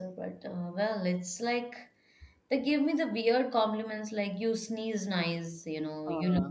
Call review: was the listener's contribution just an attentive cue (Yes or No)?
Yes